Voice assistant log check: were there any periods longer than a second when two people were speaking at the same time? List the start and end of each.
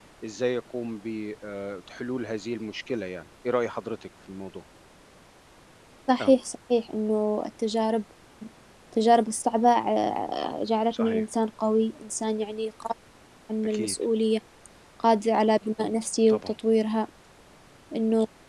none

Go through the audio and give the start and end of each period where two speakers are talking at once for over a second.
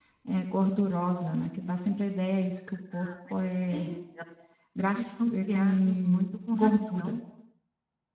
4.9-7.2

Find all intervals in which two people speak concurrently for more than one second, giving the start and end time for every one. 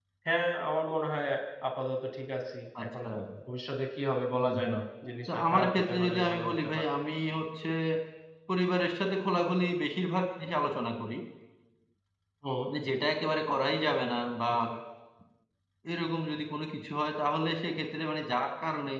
5.3-6.8

